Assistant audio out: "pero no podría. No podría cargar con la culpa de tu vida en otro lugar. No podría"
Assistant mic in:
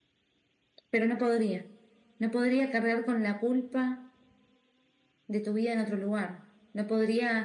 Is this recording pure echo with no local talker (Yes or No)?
Yes